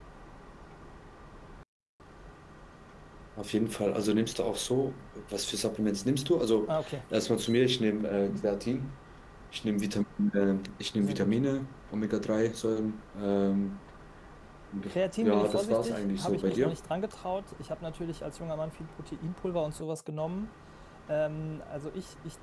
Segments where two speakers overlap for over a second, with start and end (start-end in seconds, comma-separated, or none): 15.2-16.7